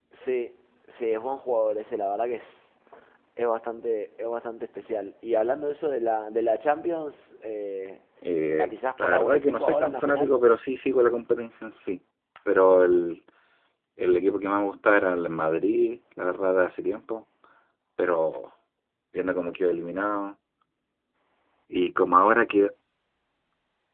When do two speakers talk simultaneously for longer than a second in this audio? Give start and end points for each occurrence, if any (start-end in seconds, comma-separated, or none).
8.4-10.4